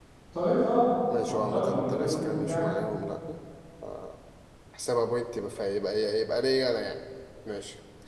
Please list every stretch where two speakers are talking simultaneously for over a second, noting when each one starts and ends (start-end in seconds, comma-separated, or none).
1.3-2.7